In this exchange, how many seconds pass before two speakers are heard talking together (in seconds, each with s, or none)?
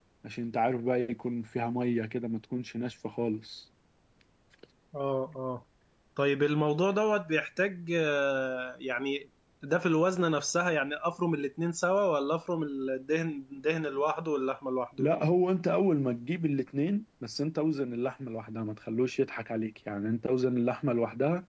none